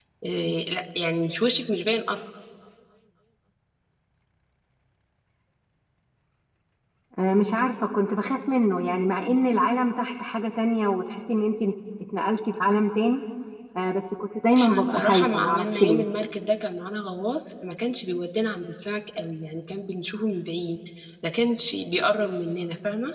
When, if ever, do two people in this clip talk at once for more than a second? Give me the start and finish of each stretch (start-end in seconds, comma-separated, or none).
14.6-16.1